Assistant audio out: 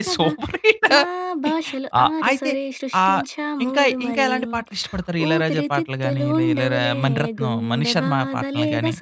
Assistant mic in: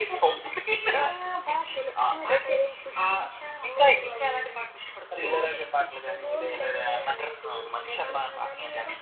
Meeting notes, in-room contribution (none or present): none